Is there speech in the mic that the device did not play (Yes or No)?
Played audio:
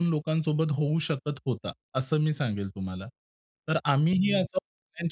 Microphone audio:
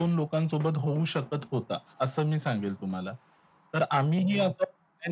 No